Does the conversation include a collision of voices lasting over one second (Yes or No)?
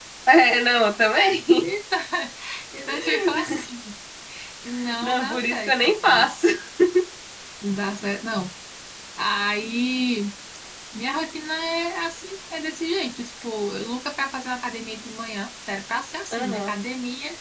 Yes